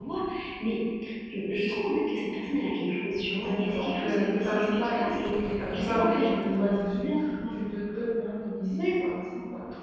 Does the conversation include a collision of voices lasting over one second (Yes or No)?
Yes